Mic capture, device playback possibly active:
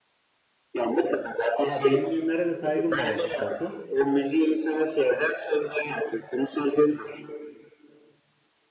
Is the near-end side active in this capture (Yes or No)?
Yes